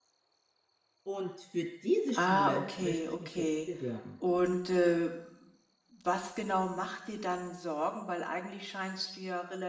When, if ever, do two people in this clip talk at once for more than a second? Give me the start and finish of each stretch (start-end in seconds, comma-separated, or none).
2.1-3.7